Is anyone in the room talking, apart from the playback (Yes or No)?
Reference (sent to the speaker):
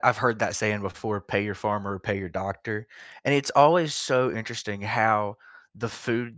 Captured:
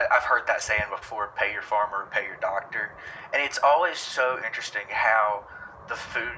No